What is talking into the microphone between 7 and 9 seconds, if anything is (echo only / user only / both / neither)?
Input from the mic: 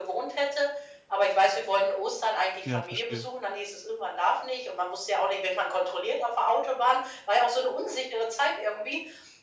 echo only